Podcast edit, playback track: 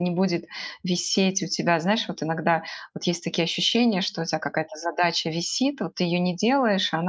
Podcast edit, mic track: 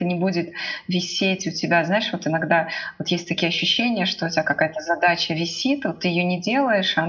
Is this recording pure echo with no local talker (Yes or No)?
Yes